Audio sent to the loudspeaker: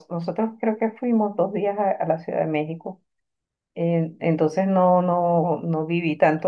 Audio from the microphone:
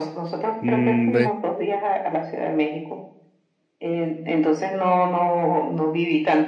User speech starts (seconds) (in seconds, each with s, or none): 0.6 s